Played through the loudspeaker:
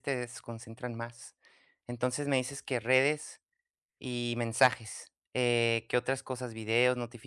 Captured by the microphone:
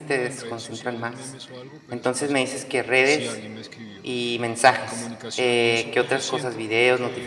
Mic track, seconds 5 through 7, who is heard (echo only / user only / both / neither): both